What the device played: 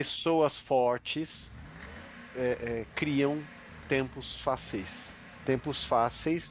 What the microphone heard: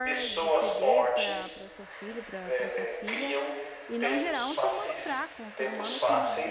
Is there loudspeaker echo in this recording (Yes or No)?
Yes